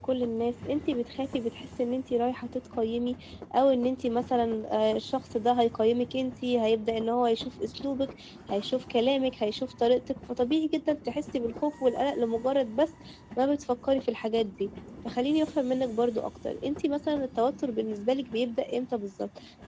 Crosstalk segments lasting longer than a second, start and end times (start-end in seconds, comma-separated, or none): none